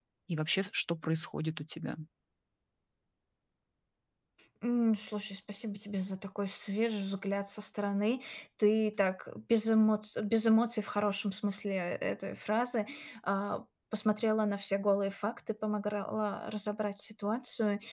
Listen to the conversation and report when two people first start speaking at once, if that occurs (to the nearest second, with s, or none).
none